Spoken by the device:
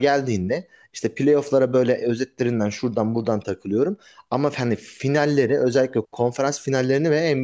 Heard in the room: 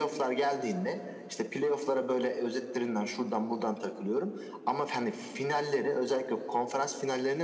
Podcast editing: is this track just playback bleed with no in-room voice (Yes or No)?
Yes